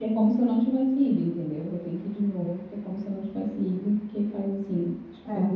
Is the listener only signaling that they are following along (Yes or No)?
No